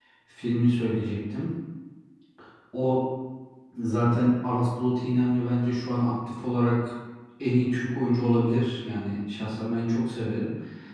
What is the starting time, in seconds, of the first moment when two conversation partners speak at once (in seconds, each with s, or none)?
none